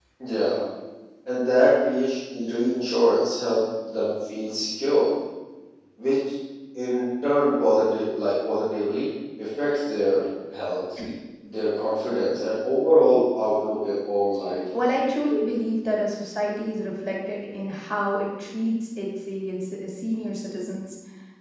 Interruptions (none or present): none